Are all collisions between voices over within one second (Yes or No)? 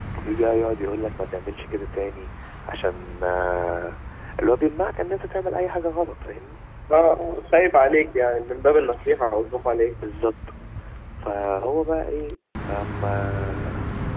Yes